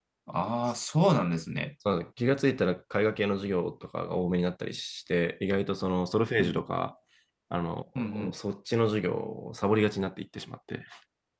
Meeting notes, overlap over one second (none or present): none